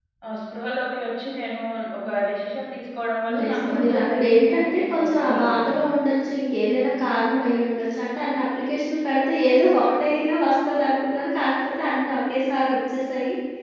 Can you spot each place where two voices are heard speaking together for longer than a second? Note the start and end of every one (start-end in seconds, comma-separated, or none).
3.4-5.7